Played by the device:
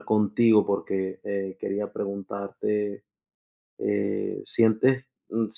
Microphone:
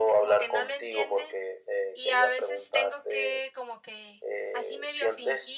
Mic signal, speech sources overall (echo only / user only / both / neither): both